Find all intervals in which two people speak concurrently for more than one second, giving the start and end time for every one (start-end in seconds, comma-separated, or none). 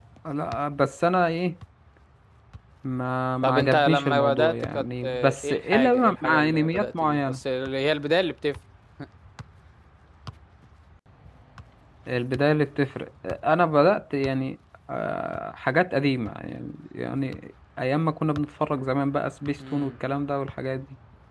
3.4-7.4